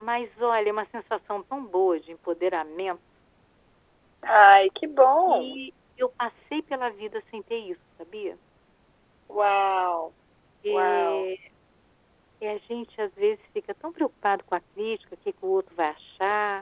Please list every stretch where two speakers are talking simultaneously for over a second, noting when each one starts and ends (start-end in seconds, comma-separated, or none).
none